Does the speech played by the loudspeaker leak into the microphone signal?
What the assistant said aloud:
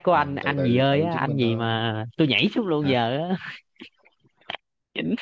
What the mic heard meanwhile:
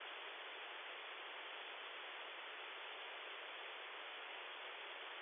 No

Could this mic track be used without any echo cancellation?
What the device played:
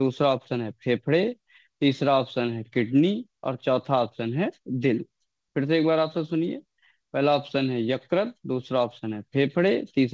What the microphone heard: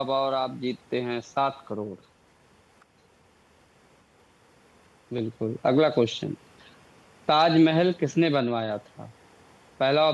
Yes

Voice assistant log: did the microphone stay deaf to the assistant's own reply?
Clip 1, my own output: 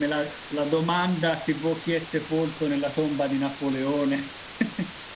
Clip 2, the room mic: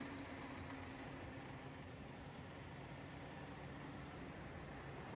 Yes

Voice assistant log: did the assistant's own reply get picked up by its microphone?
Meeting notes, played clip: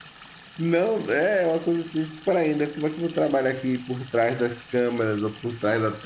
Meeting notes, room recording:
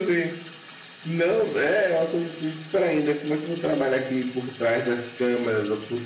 Yes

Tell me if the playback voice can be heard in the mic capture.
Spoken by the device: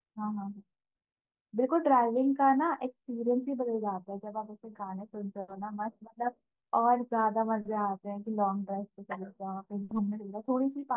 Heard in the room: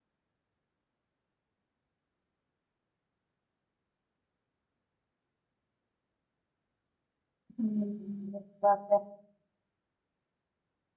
No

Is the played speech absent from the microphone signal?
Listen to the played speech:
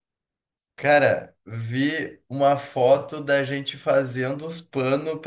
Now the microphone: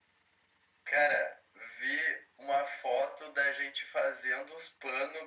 No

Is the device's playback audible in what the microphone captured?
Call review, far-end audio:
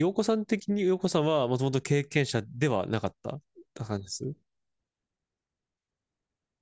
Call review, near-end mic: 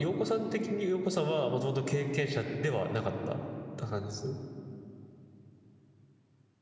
Yes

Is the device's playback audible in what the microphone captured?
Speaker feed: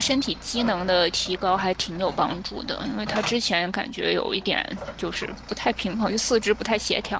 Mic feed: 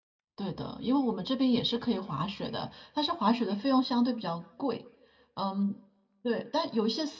No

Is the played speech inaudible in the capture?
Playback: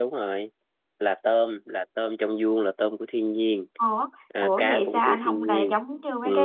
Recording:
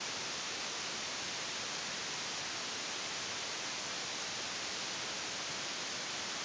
Yes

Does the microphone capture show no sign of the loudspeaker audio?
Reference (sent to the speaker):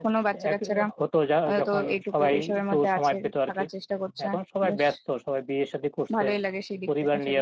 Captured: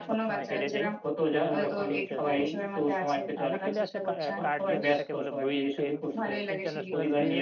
No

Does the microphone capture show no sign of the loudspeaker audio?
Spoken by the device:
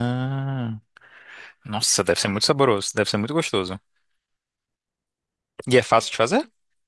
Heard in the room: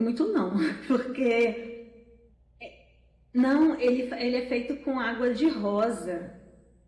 Yes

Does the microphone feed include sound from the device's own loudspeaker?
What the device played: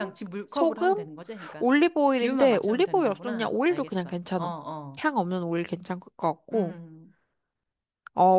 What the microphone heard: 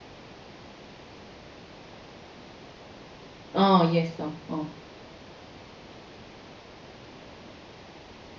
No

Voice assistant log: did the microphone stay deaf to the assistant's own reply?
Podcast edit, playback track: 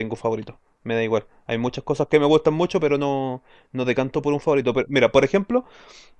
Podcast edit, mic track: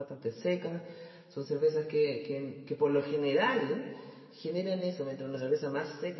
Yes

